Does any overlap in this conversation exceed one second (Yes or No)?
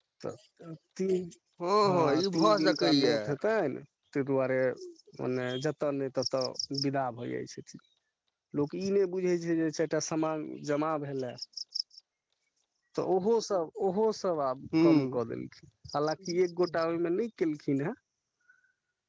Yes